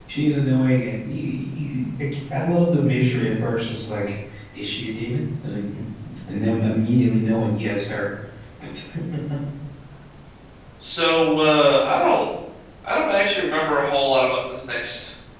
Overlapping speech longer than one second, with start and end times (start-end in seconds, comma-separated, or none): none